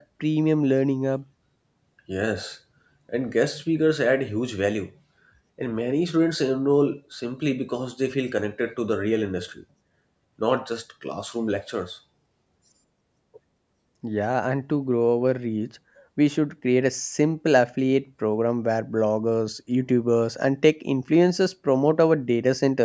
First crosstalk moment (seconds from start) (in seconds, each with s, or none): none